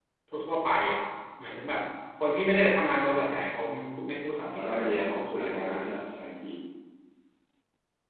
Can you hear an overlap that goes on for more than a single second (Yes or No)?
Yes